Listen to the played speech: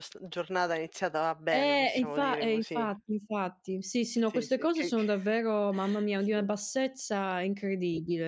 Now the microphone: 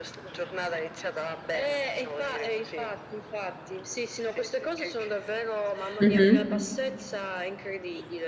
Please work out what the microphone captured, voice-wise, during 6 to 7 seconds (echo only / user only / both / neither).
both